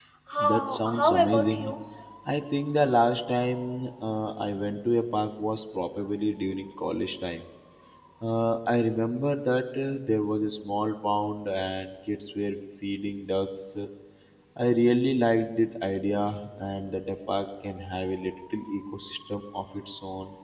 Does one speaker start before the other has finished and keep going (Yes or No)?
Yes